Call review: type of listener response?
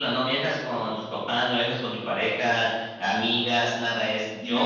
taking over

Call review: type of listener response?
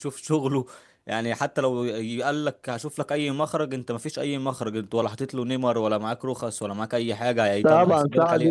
taking over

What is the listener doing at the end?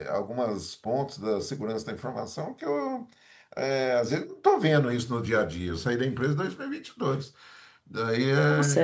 taking over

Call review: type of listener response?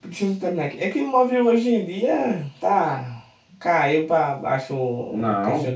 listening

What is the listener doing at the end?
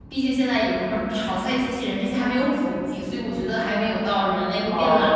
taking over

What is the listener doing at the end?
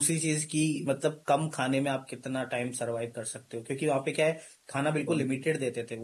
listening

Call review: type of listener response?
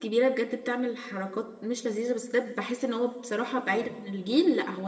listening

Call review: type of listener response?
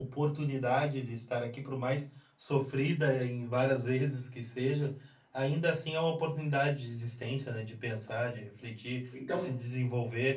listening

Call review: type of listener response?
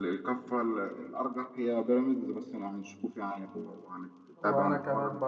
taking over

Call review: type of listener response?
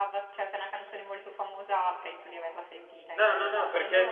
taking over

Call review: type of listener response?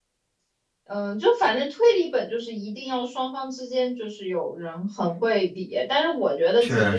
listening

